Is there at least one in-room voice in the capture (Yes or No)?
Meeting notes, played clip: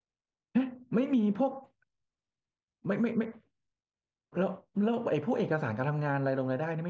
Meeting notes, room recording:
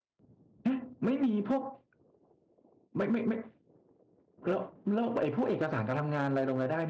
No